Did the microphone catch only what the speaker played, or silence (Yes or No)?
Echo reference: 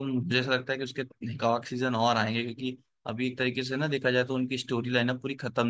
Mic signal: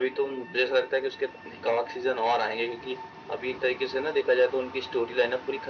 Yes